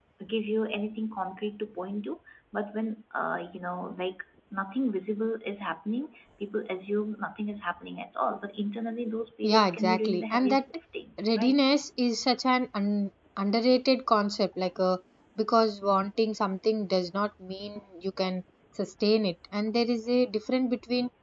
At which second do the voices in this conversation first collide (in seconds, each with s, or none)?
9.4 s